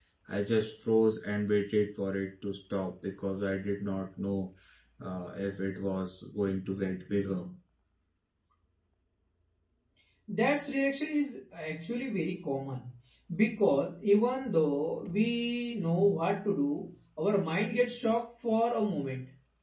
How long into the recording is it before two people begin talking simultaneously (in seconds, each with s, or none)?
none